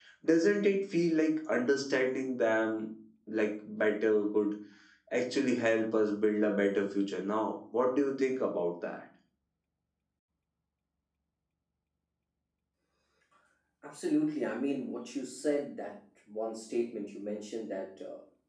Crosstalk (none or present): none